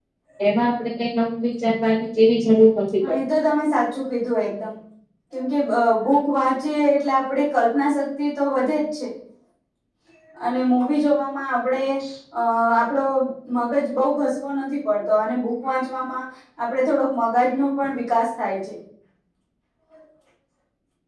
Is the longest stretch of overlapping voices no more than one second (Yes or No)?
Yes